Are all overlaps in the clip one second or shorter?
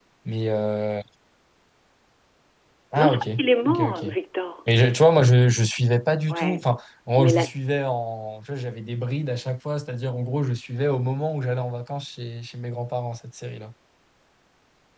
Yes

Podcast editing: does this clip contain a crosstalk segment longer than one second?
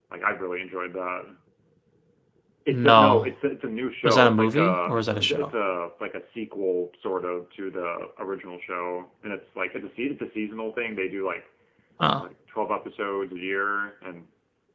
Yes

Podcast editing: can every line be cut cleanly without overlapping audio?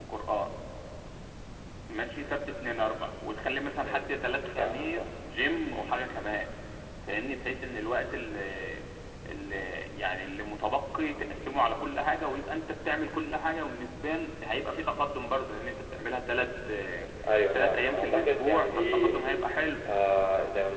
No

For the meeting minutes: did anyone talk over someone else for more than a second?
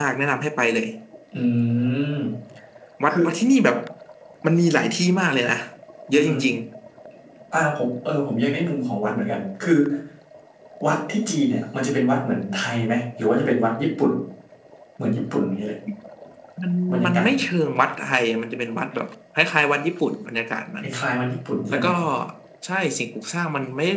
No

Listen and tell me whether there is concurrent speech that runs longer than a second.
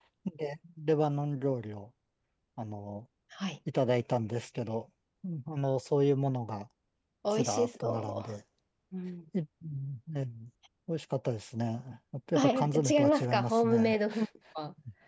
Yes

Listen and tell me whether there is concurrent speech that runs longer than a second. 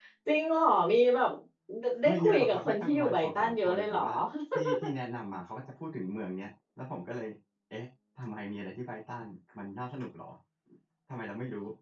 Yes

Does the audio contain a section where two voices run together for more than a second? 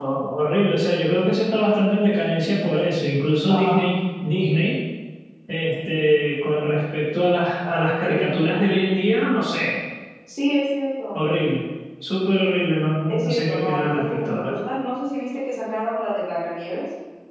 Yes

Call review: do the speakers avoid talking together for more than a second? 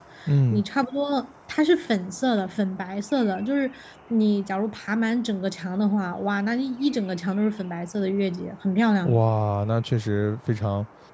Yes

